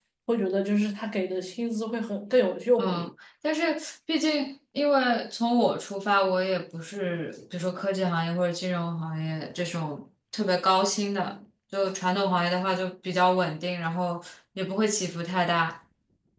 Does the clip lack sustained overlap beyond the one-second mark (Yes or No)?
Yes